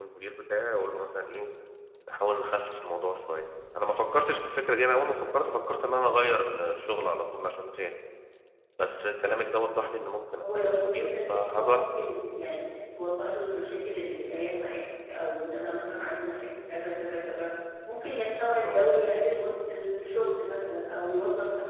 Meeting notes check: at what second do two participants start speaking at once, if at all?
10 s

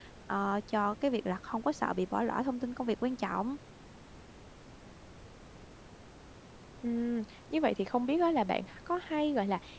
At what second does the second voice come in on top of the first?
none

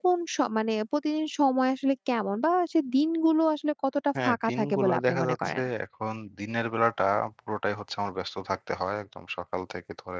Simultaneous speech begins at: 4 s

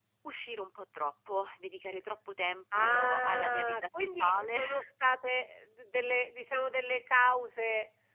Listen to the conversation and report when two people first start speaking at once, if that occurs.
3 s

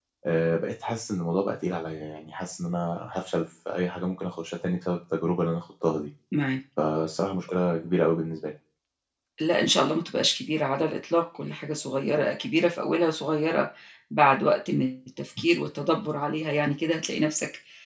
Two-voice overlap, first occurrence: none

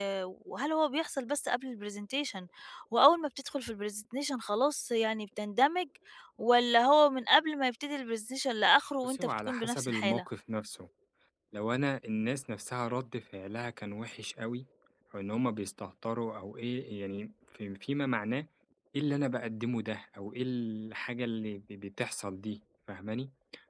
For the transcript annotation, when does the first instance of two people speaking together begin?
9 s

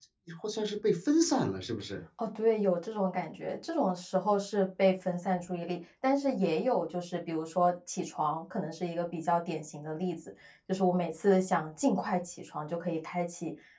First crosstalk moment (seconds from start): none

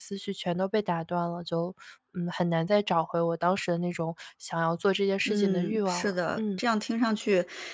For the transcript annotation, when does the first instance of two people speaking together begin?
5 s

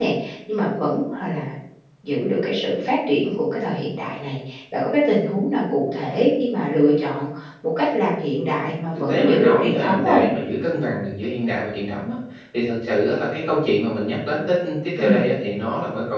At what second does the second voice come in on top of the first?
9 s

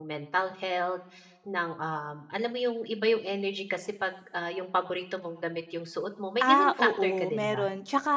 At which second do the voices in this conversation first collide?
6 s

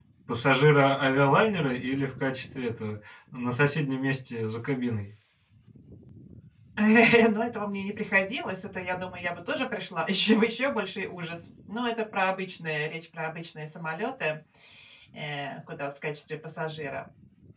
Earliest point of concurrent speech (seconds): none

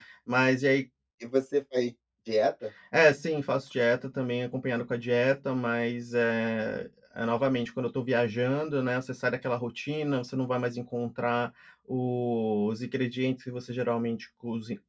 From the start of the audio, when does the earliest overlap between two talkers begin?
none

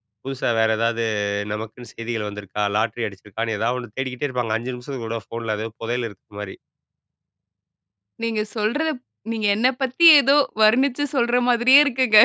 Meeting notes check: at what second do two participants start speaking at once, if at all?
none

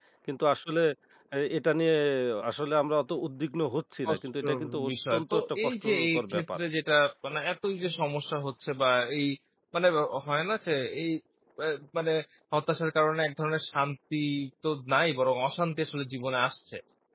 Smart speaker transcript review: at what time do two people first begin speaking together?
4 s

